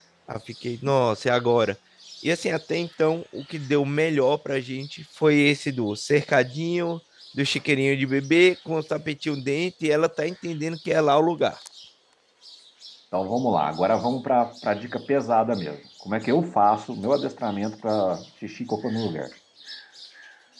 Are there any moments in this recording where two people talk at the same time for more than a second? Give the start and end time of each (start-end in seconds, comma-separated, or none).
none